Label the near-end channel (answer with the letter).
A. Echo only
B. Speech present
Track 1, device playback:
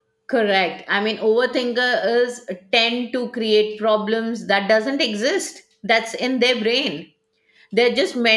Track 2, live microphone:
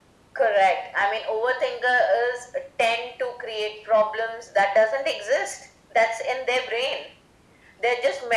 A